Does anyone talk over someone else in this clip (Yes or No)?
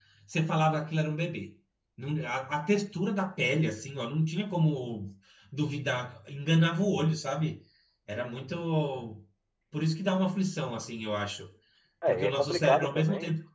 Yes